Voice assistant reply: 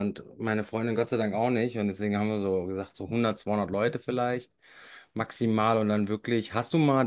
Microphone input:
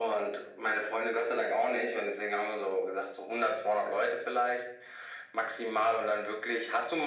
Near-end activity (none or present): none